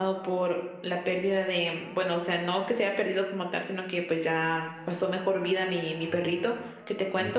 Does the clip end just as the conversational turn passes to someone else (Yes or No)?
No